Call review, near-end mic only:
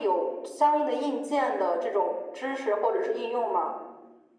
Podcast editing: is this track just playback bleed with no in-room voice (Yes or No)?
Yes